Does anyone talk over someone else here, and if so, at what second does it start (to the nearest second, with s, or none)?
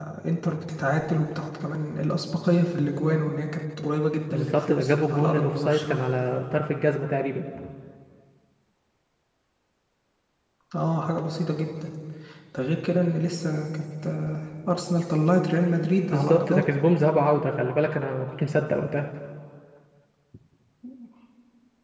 4 s